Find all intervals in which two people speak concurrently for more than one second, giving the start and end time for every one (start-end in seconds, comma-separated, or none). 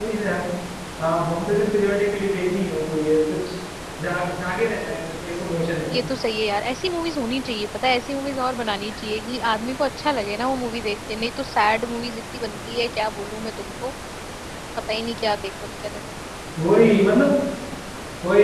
none